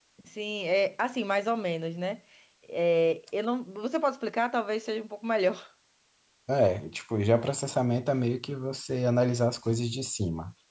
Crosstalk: none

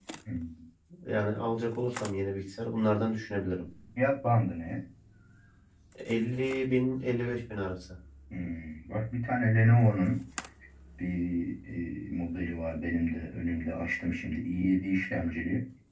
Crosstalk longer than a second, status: none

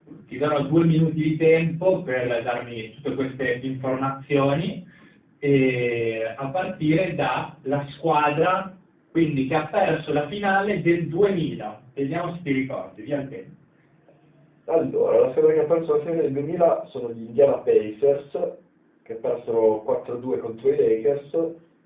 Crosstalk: none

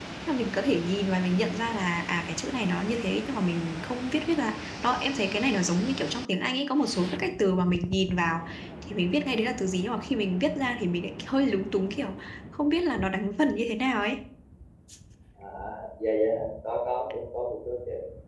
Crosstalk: none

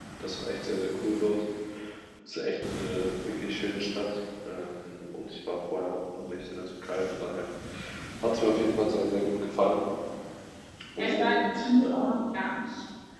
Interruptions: present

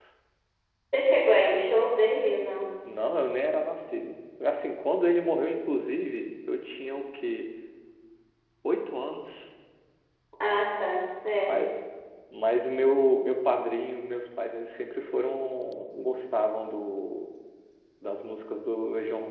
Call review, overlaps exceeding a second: none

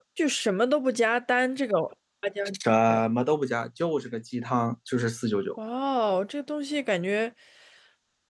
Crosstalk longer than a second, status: none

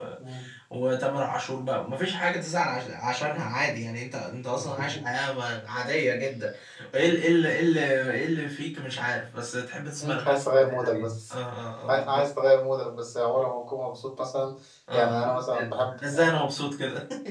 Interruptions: present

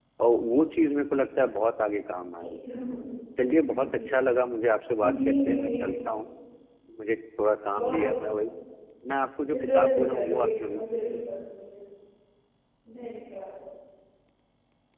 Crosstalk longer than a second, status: present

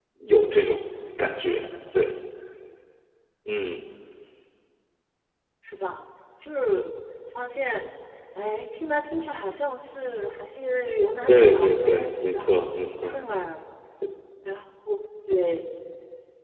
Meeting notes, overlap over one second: present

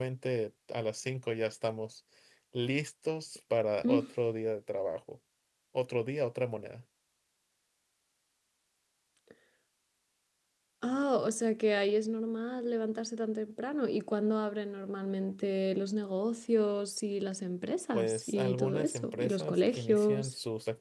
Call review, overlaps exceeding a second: present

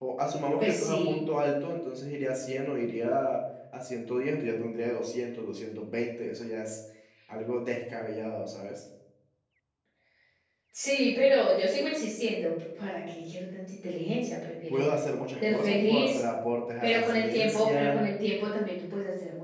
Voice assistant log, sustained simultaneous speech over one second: present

